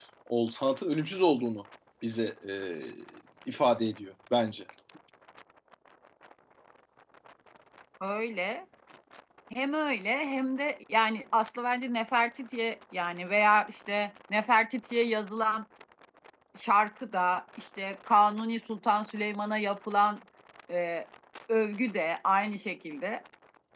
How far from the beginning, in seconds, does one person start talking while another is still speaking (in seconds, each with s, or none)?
none